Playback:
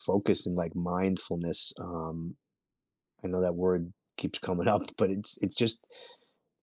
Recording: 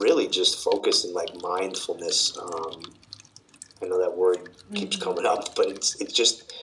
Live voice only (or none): Mhm.